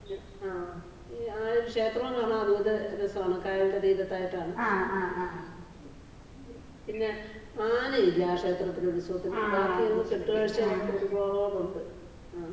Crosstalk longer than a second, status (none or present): present